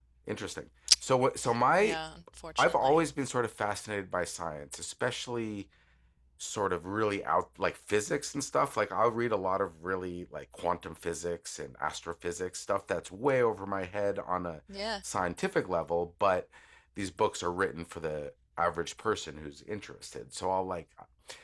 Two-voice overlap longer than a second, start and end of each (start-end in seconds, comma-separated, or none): none